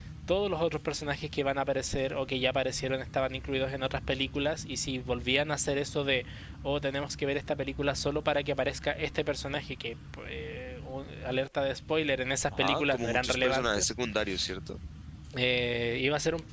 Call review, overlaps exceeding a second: present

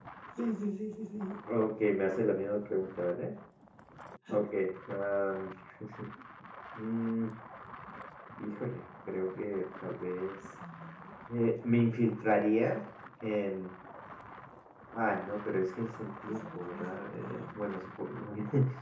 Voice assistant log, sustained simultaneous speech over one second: present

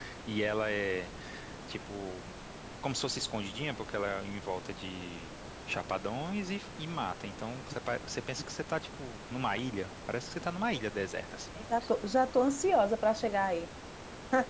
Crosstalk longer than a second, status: none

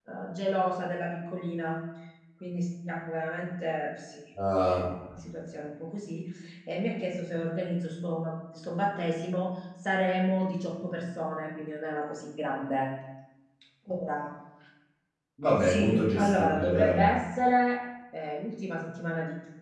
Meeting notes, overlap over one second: present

